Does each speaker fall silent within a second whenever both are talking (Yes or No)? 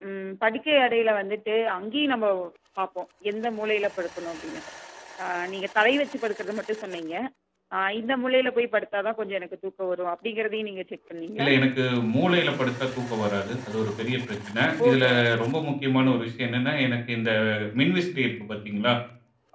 Yes